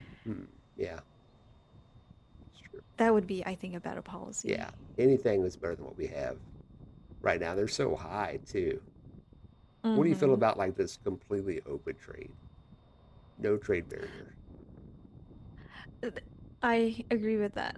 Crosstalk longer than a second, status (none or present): none